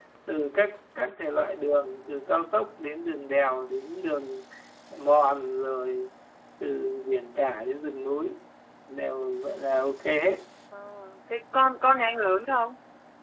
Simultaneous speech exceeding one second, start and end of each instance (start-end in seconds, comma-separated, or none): none